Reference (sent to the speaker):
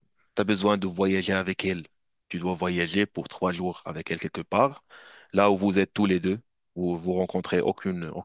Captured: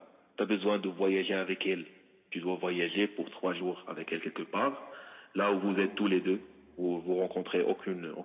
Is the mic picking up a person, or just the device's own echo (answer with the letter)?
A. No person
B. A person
A